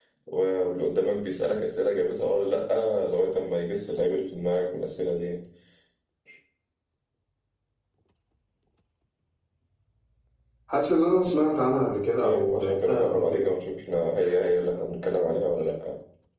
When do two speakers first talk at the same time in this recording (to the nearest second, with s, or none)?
12 s